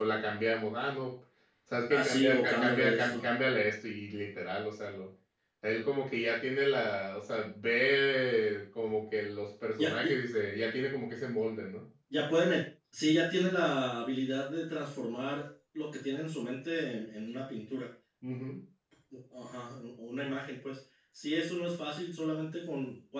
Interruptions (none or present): present